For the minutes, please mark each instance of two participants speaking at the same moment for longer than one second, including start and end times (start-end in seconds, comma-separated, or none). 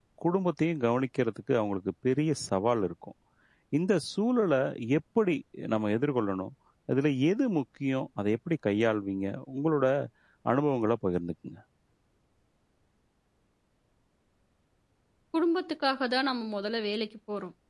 none